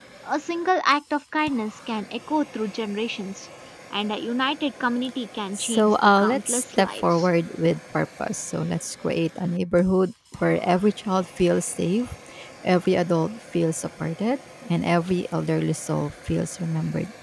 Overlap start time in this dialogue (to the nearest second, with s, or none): 6 s